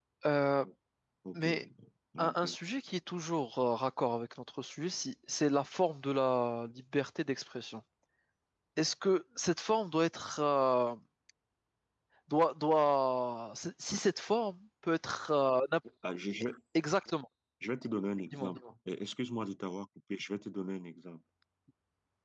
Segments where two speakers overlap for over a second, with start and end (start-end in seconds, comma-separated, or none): none